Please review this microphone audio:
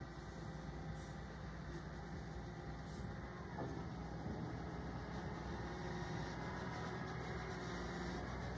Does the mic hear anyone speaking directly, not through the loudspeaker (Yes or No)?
No